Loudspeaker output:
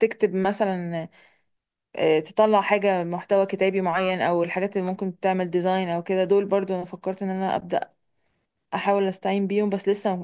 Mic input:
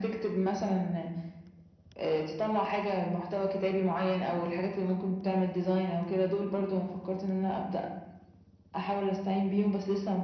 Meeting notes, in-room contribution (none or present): none